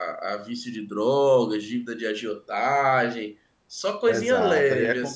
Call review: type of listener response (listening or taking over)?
taking over